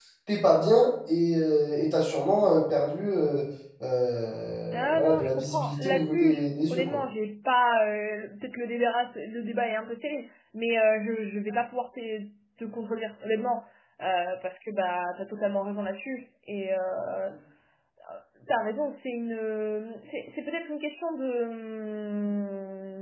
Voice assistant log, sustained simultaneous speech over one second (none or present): present